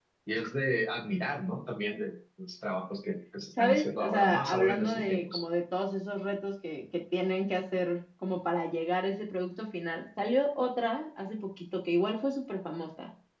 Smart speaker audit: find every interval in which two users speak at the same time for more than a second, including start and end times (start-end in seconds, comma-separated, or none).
3.6-5.4